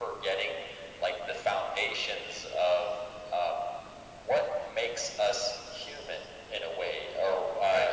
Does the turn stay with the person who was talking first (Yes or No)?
Yes